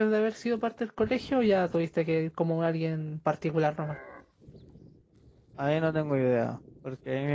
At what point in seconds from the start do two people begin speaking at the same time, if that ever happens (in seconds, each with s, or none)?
none